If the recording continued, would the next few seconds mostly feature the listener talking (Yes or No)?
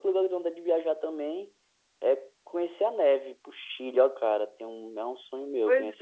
Yes